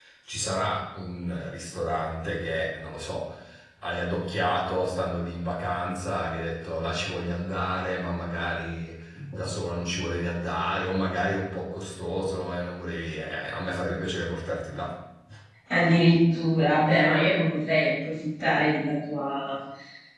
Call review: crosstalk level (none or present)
none